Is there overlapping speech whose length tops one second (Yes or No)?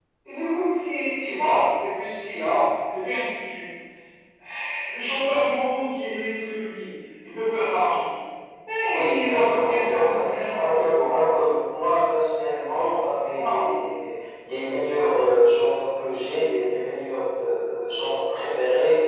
Yes